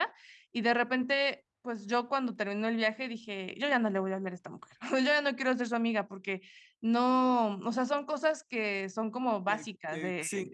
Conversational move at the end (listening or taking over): taking over